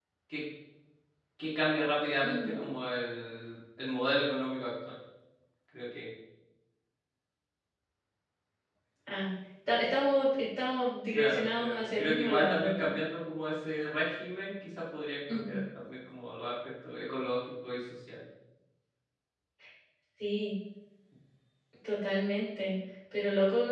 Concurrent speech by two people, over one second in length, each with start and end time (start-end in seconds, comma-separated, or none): 11.2-12.9